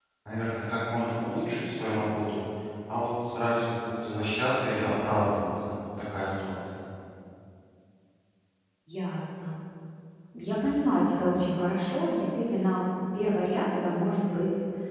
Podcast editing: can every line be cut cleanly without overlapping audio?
Yes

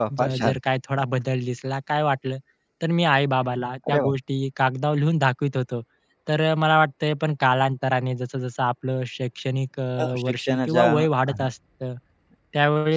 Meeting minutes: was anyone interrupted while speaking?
Yes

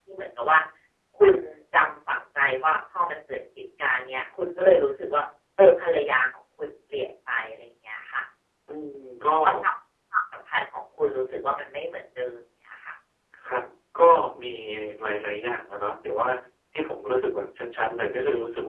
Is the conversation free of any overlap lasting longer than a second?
Yes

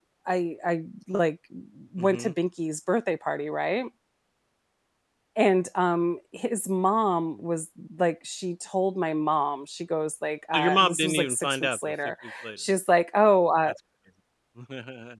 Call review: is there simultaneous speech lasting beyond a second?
Yes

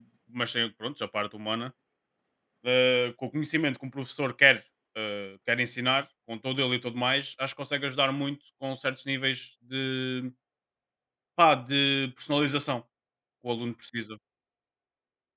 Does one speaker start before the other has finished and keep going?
No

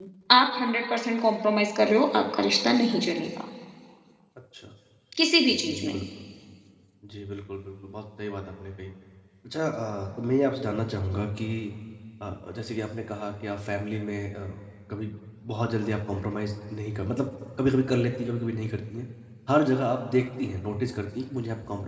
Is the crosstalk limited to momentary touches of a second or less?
Yes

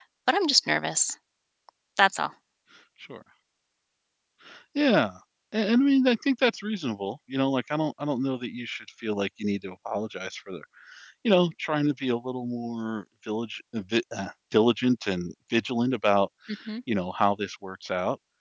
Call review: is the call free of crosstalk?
Yes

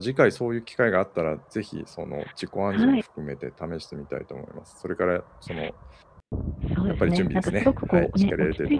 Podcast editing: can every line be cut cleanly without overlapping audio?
No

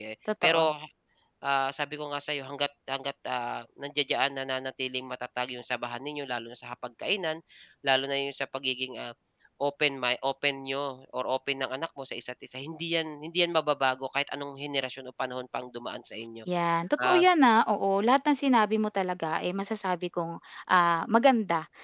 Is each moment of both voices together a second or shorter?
Yes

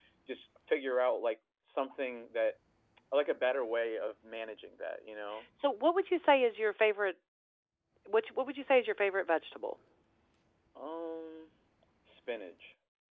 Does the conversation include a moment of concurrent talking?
No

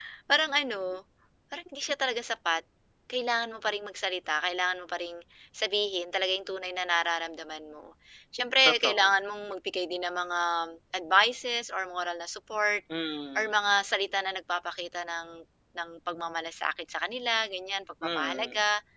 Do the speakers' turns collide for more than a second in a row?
No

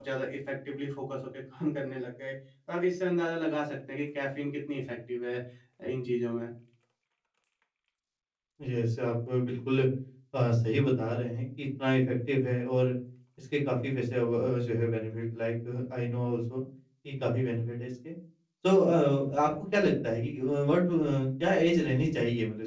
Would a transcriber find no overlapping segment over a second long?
Yes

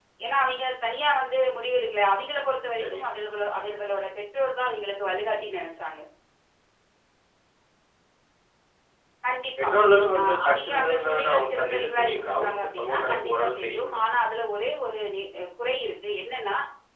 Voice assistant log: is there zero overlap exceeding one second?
No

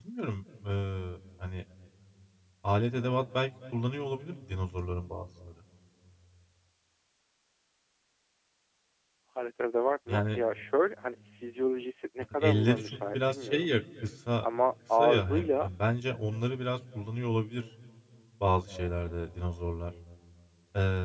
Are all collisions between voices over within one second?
No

